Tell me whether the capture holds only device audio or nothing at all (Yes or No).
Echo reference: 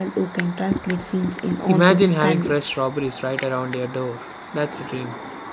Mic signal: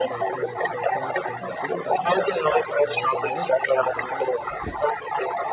No